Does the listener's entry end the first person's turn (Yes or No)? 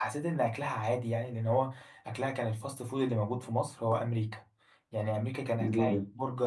No